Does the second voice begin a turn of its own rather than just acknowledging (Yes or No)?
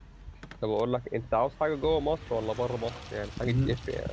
No